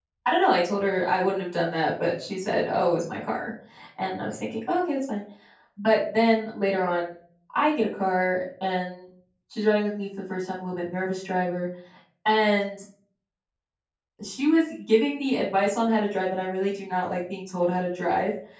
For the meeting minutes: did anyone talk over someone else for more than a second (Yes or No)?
No